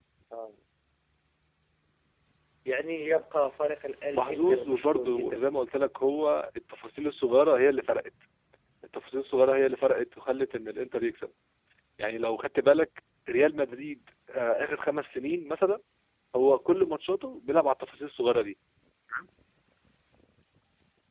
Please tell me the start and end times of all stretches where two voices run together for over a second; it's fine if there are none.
4.1-5.4

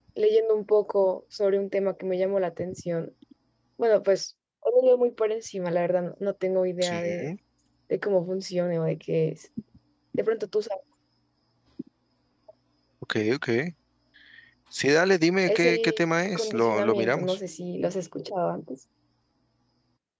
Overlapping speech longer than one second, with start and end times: 15.5-17.4

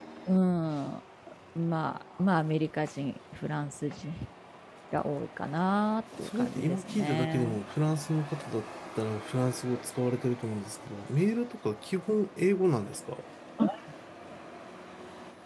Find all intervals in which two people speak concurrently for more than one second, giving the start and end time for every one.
6.2-7.6

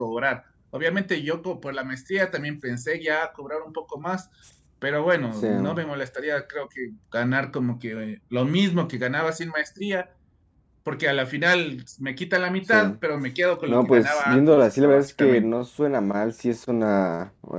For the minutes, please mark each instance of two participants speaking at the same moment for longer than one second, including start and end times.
13.7-15.5

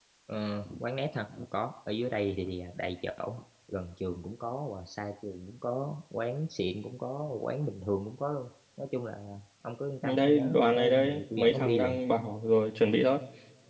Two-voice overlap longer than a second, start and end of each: 10.0-12.0

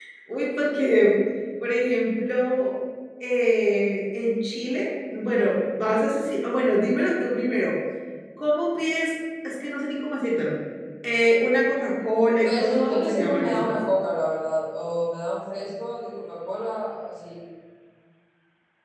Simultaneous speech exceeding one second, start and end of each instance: 12.4-13.8

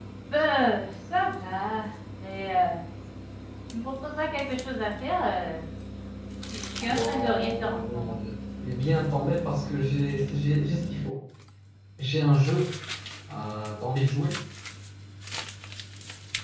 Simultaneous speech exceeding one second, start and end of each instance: 6.9-8.1

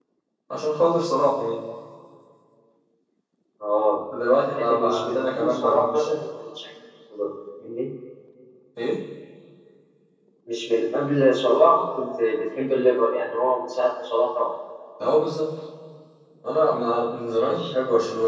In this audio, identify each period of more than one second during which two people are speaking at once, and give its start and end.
4.7-6.1

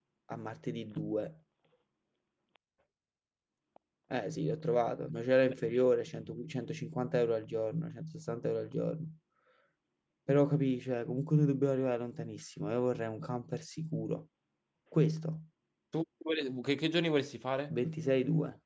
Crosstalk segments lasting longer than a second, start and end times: none

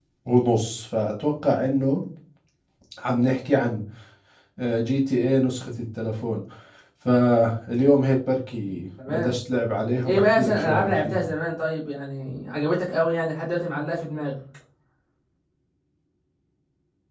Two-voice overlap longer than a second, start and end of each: 10.0-11.3

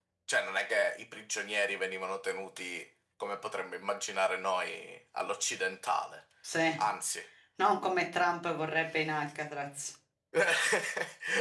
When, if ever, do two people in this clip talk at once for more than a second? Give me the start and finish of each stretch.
none

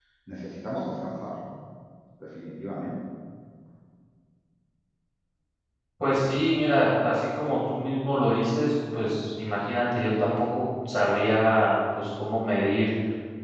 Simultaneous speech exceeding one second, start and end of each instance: none

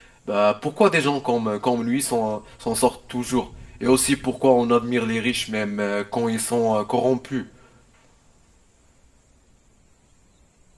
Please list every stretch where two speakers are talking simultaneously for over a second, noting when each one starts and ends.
none

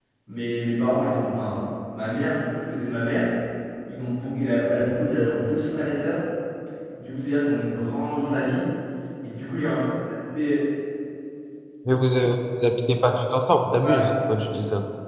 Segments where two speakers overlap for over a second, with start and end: none

